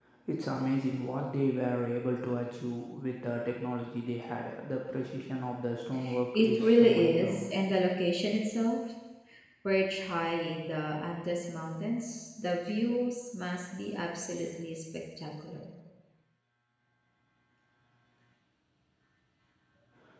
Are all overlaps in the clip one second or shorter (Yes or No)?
No